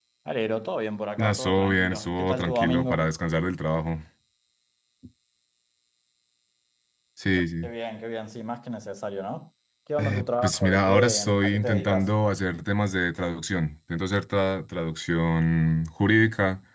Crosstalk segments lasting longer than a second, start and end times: 1.2-3.1, 10.0-12.1

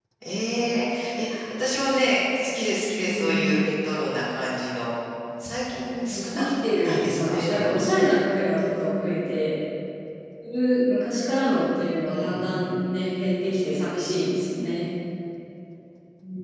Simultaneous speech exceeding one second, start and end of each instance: 6.0-7.8

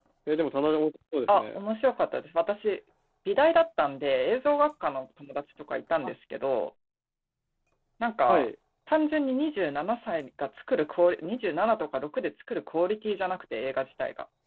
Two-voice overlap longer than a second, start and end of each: none

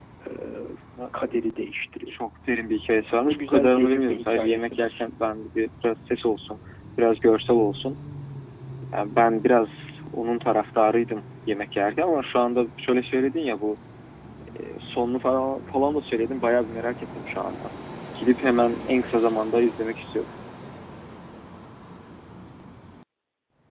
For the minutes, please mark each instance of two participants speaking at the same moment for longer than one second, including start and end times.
3.1-5.0

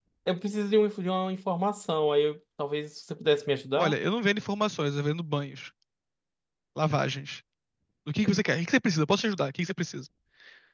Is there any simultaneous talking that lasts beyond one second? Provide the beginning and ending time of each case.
none

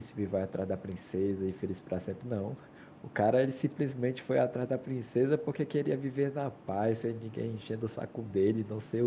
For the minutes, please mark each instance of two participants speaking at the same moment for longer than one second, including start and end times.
none

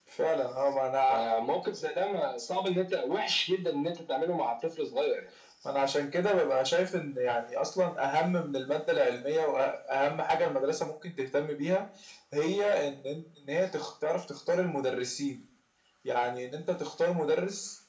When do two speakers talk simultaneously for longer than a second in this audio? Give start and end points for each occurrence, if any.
none

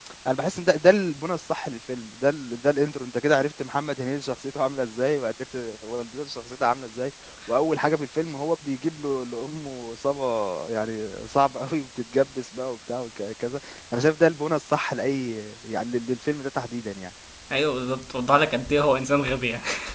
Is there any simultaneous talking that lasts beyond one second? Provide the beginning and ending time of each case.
none

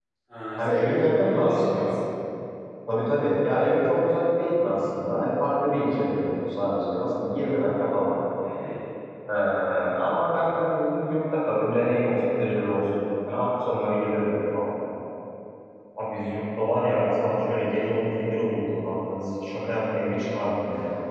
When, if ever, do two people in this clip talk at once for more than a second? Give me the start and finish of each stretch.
0.6-1.9

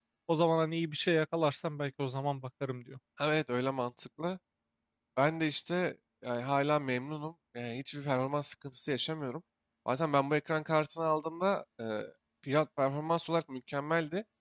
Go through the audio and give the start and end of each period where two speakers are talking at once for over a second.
none

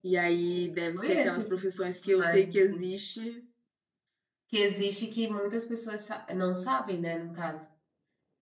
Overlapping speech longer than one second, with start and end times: 0.9-3.0

